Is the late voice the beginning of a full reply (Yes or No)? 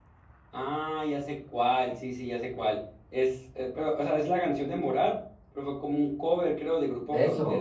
Yes